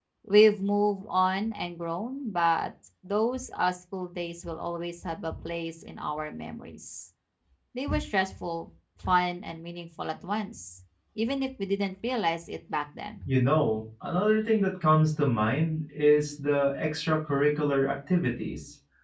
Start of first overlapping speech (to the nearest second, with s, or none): none